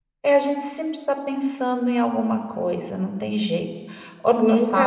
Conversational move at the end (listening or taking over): taking over